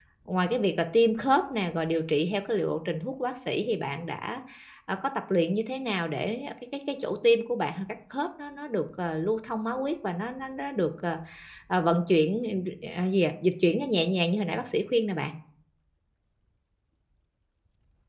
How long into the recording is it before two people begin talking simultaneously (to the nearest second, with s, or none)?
none